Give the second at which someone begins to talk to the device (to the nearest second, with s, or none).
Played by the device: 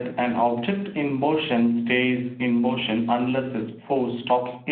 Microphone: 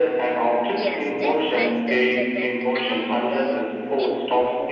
1 s